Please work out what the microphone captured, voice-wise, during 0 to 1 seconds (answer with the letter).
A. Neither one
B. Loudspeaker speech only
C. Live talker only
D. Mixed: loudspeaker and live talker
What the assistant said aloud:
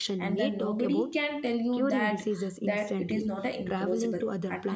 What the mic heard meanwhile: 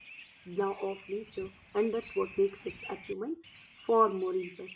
C